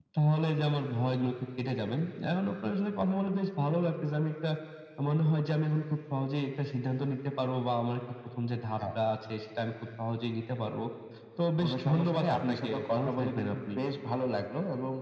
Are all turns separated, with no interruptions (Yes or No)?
No